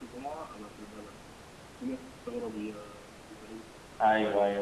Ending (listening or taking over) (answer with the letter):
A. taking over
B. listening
A